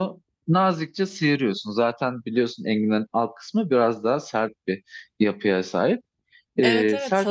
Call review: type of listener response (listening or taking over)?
taking over